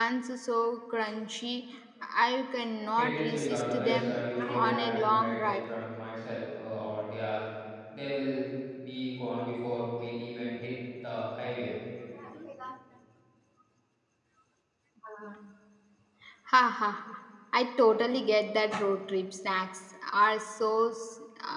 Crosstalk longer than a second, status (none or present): present